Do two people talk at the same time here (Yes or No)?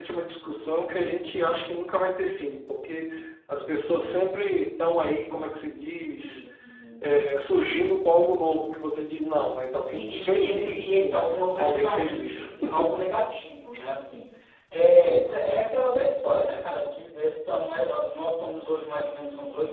Yes